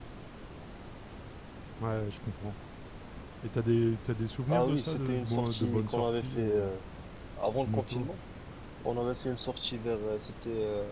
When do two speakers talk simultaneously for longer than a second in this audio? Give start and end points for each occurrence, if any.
4.5-6.7

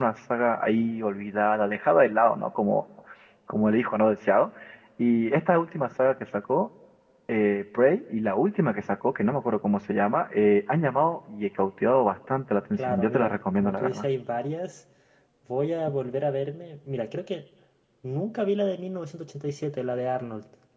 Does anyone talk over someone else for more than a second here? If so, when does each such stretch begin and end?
12.7-14.1

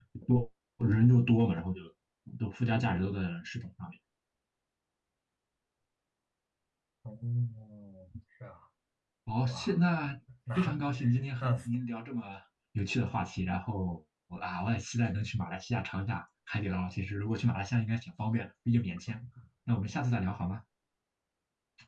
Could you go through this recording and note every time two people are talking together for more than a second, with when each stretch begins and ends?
none

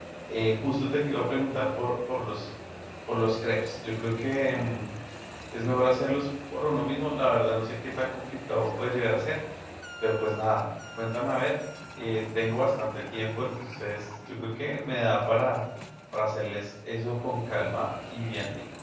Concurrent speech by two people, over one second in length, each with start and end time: none

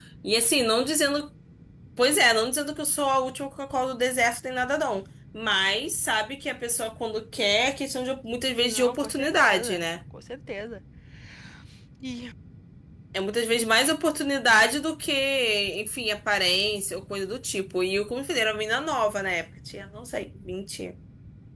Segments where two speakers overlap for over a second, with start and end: 8.6-9.8

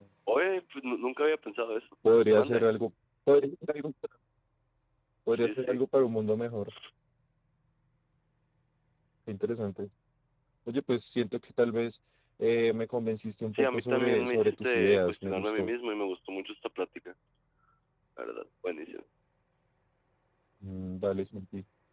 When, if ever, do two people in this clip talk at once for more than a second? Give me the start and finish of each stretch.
13.5-15.7

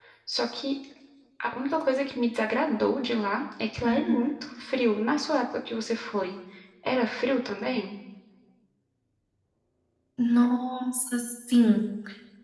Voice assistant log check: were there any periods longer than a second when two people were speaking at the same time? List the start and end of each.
none

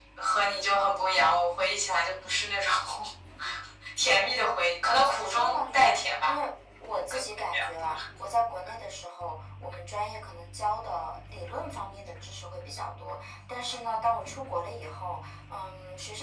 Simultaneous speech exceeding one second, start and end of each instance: 4.2-6.4

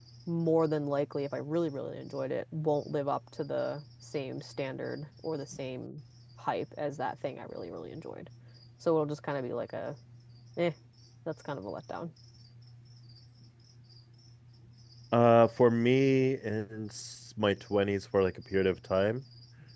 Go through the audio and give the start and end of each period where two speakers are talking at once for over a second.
none

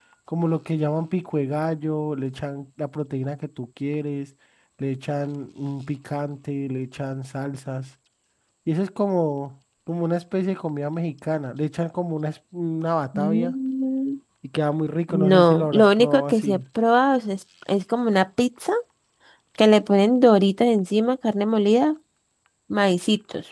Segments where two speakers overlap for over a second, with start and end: 15.1-16.6

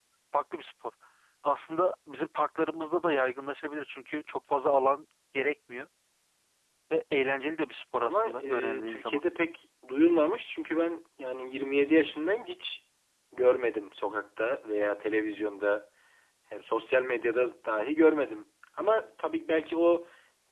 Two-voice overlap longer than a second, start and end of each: 8.0-9.2

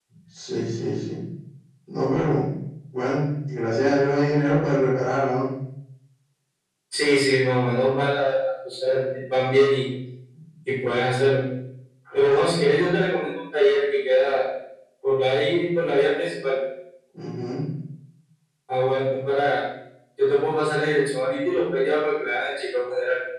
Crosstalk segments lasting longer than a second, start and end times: none

